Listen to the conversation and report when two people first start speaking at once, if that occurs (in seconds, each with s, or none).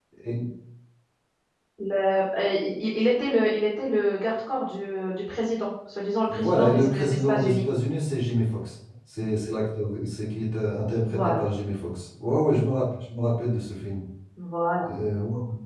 6.3 s